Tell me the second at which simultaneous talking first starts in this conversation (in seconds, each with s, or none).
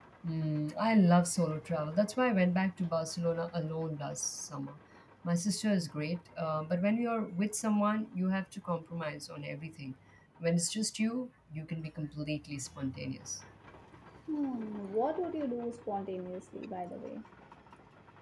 none